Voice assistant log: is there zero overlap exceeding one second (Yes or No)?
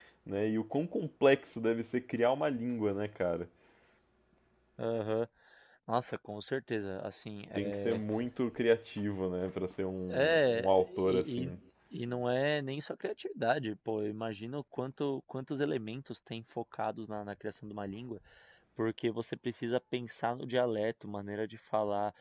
No